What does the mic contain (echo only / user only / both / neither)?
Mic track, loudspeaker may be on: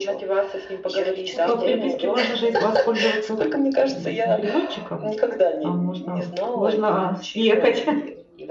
both